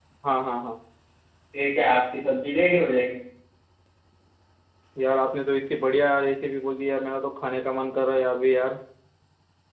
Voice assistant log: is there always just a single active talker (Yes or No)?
Yes